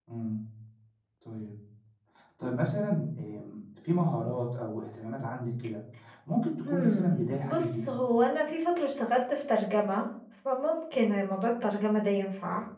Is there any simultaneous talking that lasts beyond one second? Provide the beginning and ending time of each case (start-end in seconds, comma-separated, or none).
6.7-7.9